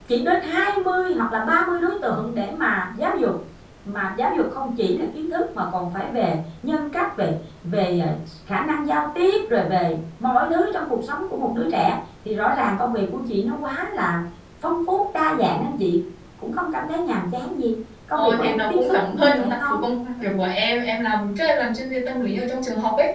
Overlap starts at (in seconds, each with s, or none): 18.1 s